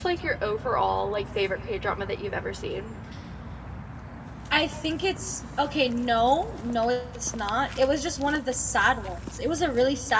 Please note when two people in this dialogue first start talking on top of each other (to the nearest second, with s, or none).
none